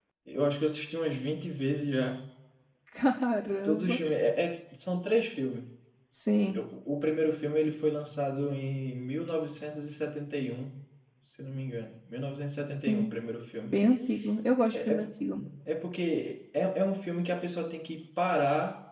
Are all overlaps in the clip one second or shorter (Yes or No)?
Yes